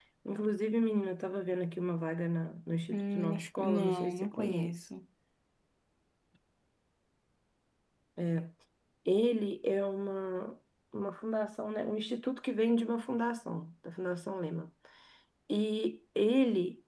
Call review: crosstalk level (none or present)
present